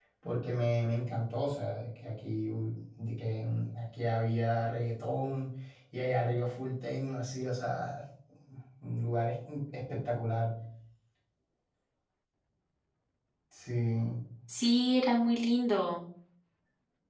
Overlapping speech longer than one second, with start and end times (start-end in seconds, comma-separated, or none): none